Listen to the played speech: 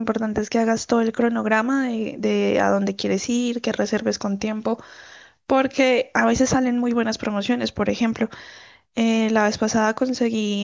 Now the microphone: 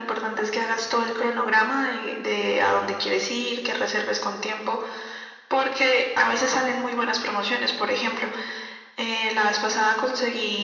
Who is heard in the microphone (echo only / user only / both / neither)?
echo only